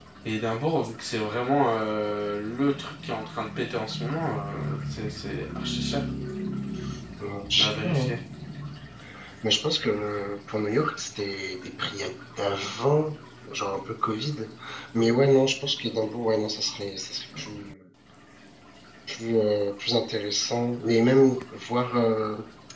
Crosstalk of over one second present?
No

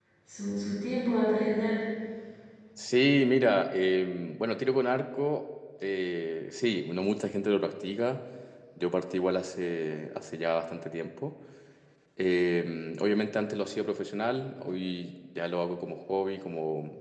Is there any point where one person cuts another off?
No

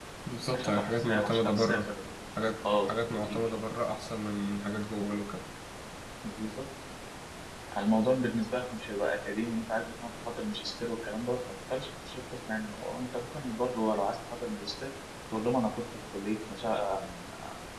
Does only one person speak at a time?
No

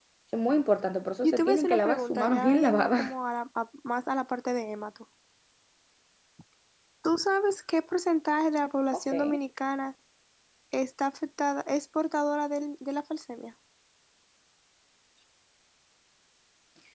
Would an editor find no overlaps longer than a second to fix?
No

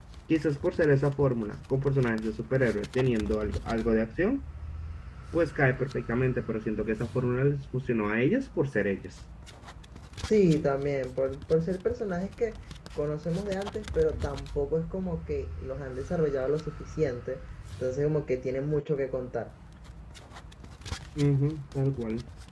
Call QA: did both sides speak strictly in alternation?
Yes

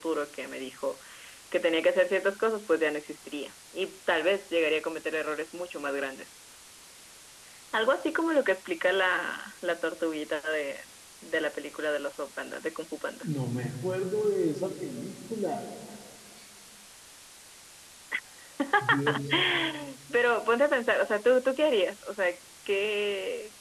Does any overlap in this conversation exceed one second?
No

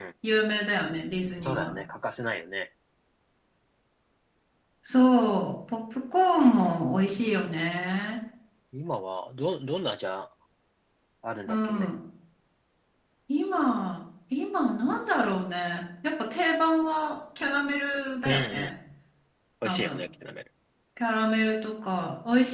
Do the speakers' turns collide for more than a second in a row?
No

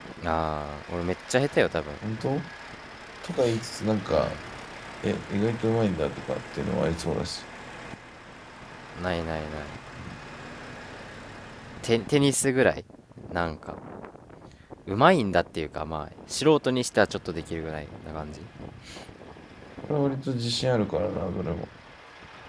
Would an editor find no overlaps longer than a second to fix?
Yes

